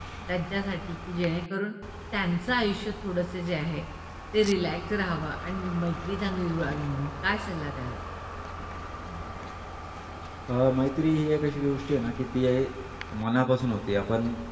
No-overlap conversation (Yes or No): Yes